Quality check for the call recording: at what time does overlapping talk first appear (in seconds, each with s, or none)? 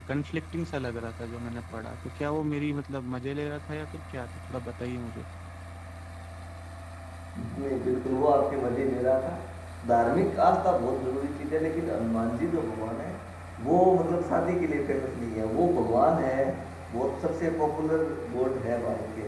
none